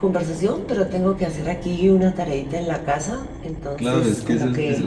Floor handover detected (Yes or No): Yes